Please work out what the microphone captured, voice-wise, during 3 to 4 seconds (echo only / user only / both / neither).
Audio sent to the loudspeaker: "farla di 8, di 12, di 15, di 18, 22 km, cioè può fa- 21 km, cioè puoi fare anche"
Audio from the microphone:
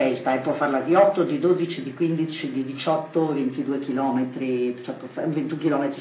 echo only